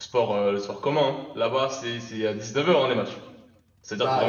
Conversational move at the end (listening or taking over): taking over